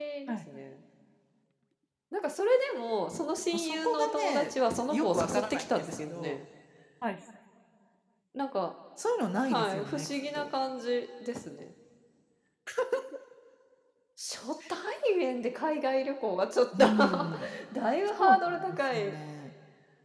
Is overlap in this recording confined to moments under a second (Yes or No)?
No